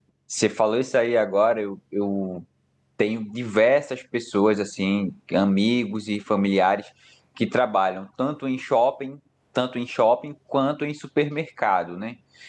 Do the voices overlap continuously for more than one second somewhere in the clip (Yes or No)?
No